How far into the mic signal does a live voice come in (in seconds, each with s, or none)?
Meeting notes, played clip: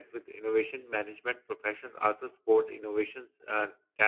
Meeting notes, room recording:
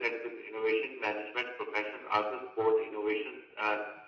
none